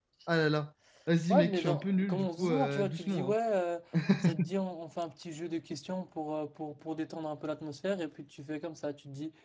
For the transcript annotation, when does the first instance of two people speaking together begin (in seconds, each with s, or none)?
1.3 s